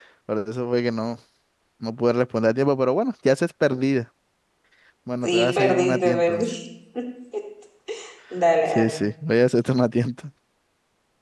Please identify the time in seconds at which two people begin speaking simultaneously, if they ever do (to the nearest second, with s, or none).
5 s